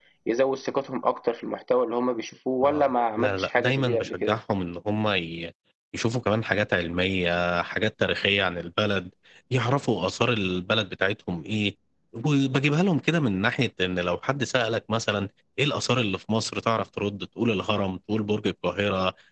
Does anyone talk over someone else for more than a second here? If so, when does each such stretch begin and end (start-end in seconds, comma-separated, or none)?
2.6-4.4